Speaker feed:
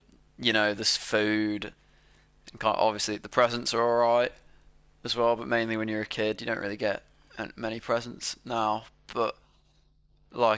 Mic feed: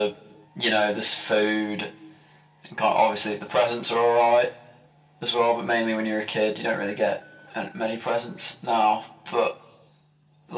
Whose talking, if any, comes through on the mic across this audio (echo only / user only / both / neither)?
echo only